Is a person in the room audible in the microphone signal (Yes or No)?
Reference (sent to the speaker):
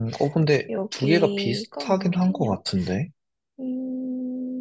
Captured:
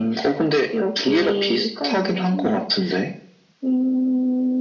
No